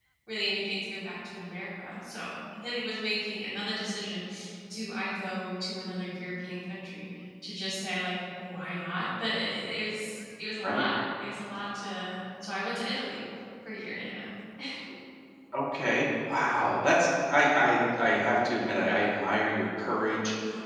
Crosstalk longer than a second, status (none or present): none